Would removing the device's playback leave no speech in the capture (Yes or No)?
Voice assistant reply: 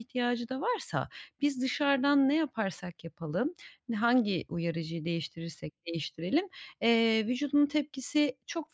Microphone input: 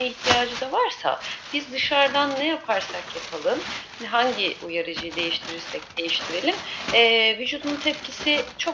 Yes